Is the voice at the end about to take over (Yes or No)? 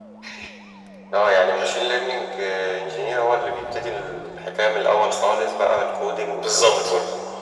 Yes